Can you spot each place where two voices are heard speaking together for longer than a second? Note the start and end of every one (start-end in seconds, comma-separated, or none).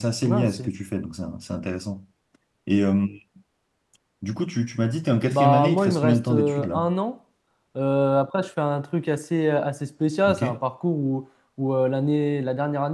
5.3-6.8